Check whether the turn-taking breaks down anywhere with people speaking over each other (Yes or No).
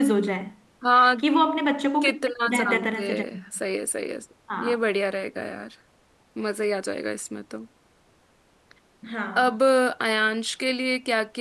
Yes